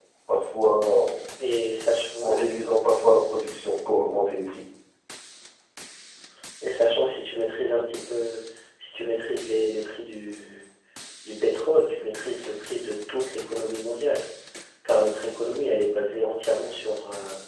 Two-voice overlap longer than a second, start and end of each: none

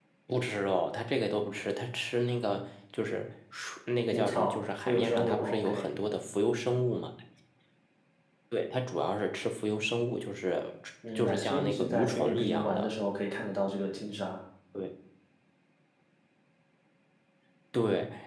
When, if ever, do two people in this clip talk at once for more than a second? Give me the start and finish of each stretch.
4.1-5.9, 11.2-12.9

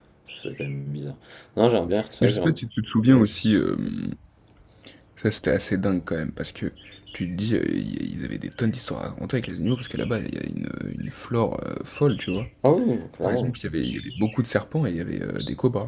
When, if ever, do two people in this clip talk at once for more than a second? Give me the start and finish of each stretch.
none

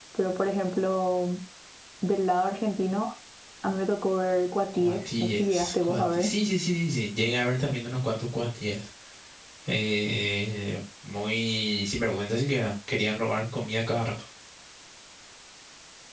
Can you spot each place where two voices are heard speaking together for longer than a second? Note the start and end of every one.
4.8-6.3

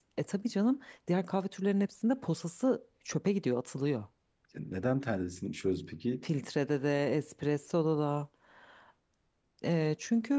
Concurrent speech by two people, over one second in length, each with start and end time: none

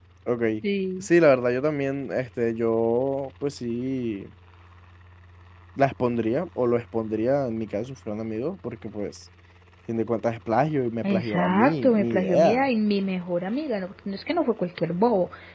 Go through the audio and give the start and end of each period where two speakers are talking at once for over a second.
11.0-12.7

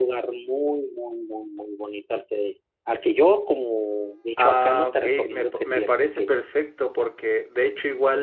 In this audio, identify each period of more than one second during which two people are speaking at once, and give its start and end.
4.4-6.3

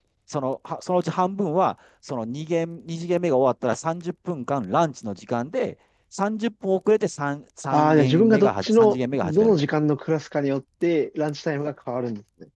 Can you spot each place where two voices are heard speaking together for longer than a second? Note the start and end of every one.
7.7-9.7

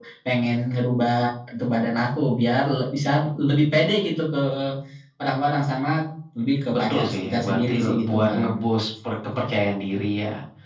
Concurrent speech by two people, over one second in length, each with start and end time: 6.7-8.5

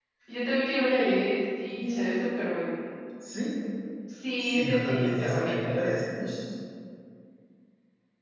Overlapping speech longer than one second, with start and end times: 4.4-5.9

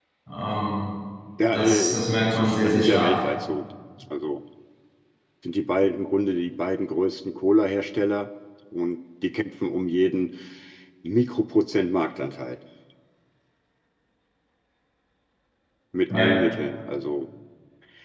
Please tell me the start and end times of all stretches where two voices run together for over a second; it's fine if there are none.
1.5-3.2

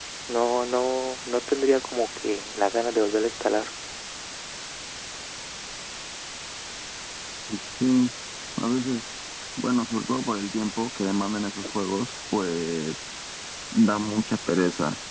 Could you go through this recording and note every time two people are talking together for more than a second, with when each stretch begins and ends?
none

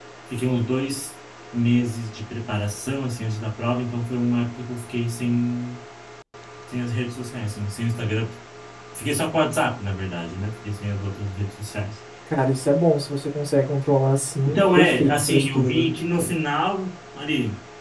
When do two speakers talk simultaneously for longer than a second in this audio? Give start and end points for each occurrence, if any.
14.4-15.9

